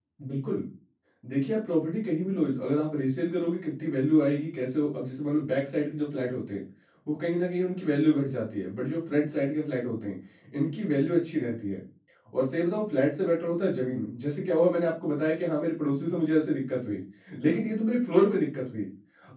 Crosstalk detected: No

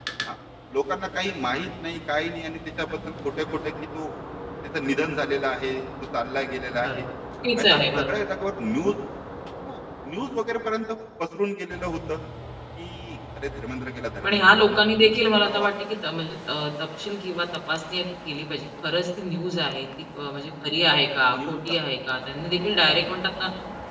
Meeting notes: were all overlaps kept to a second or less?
No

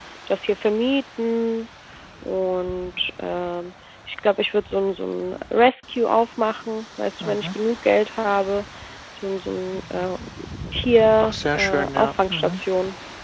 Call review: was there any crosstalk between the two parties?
Yes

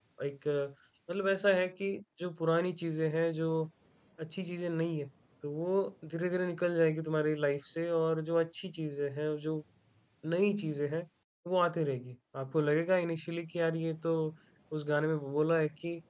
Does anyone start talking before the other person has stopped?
No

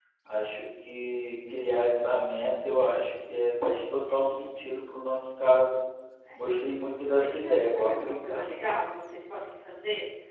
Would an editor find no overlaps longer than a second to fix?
No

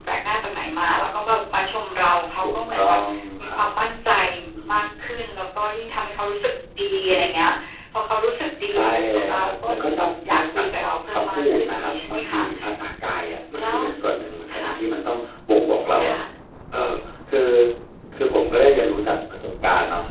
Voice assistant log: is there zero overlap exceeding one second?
No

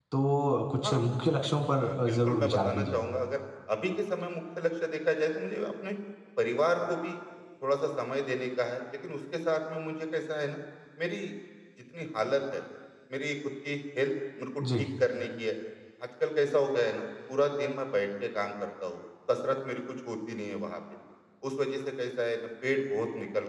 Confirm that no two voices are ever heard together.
No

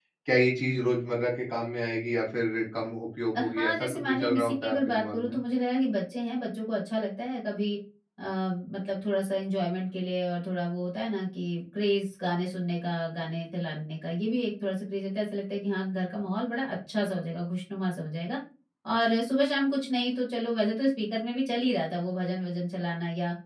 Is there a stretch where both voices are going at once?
Yes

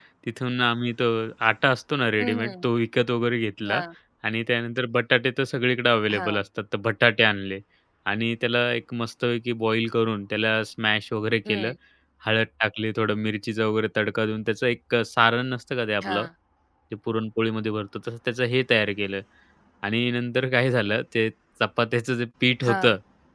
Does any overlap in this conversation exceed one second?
No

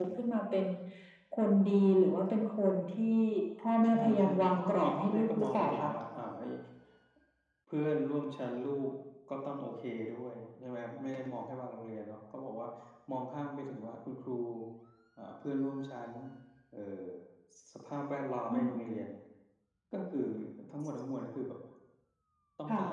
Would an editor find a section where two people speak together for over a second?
Yes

